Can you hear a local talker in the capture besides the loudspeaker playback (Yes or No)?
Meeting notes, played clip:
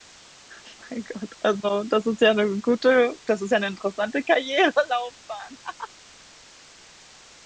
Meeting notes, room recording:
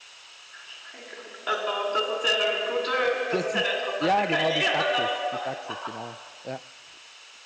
Yes